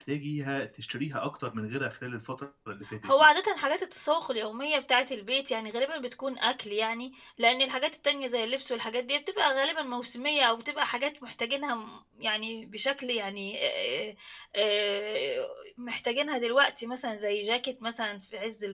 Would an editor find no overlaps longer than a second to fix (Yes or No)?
Yes